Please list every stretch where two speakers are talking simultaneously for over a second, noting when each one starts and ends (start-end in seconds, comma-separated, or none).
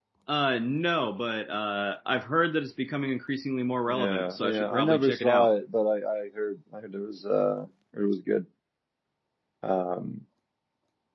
3.9-5.5